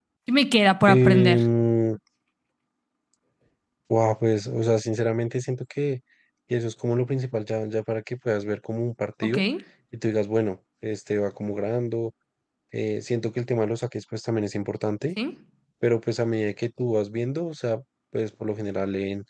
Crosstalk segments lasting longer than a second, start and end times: none

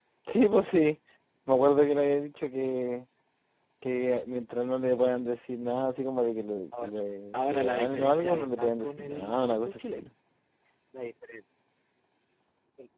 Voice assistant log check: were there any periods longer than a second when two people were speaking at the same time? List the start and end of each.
7.3-10.1

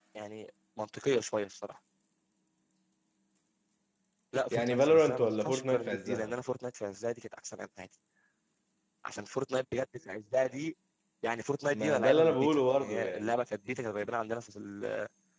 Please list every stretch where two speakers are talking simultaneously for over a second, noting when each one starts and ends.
4.5-6.3, 11.7-13.3

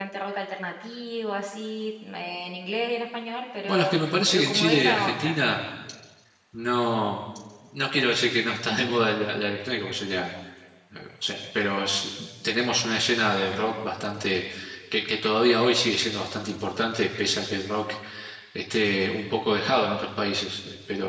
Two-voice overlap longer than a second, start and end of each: 3.7-5.4

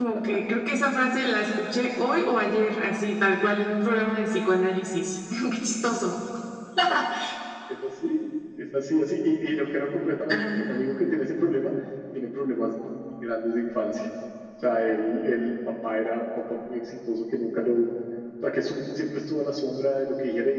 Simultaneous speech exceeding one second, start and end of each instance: none

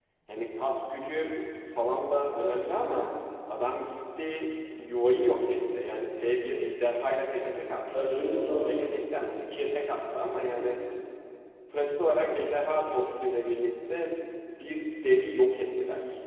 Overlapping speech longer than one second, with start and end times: none

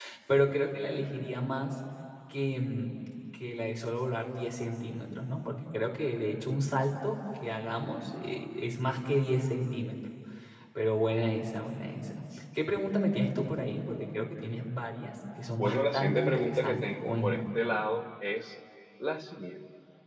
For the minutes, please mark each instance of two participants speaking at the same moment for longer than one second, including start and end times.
15.5-17.5

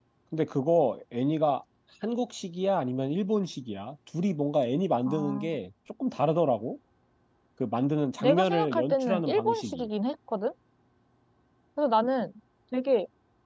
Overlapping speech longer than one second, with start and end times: 8.2-9.9

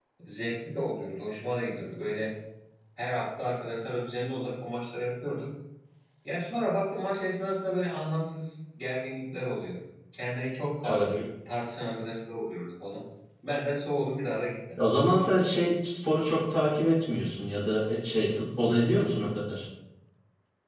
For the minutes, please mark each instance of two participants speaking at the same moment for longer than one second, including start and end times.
none

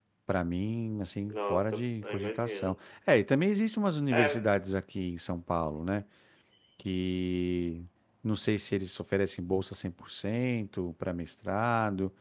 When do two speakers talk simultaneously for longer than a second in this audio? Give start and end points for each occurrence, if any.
1.3-2.7

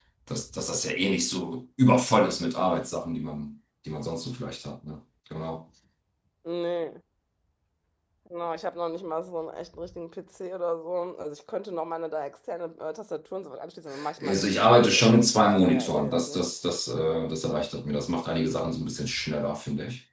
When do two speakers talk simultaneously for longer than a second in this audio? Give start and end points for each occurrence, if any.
14.2-16.4

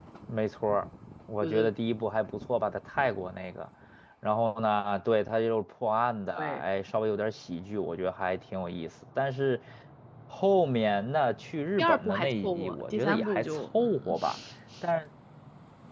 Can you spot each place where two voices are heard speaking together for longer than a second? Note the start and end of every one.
11.8-14.1

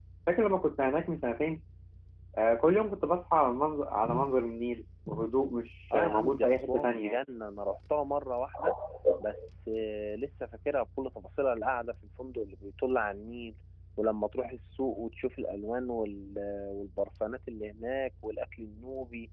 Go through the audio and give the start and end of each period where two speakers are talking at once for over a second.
5.9-7.2

